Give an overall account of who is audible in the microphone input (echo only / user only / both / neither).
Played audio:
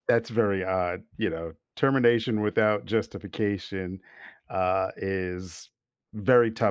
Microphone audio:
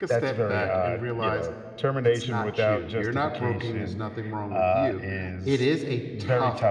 both